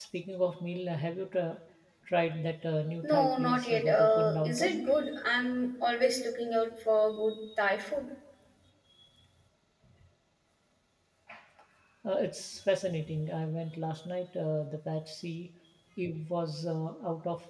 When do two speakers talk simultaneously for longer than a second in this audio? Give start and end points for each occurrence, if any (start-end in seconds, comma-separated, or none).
3.0-4.8